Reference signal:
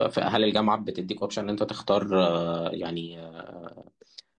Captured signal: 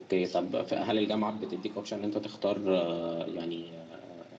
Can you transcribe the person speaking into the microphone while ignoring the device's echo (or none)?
none